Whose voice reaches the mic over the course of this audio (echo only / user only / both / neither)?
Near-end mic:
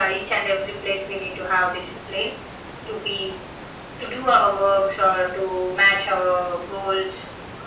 echo only